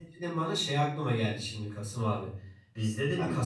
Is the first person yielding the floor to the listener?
No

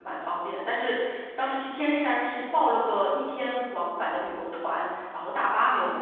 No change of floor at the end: No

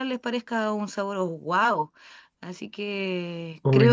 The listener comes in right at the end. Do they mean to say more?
No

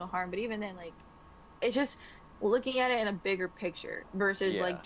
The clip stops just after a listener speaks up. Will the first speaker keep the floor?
Yes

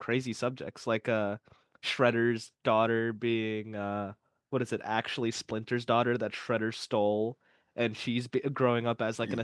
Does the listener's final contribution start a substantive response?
No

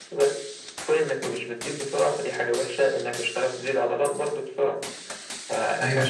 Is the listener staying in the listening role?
Yes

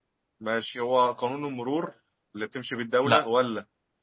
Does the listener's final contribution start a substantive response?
No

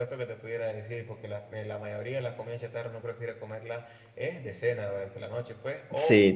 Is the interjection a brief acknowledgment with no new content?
Yes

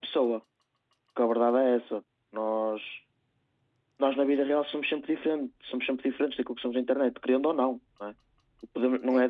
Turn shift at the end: No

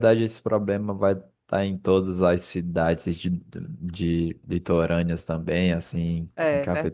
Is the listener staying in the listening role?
Yes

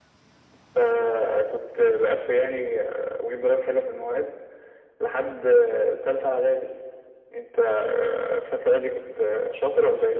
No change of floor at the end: No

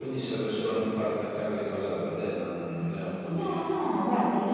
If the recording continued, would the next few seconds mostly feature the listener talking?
Yes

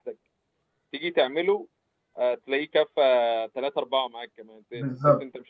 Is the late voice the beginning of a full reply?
No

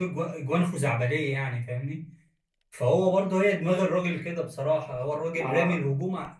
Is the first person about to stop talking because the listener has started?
No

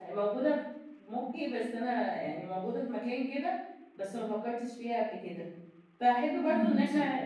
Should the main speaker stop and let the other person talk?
No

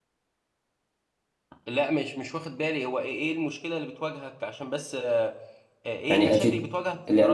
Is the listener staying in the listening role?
No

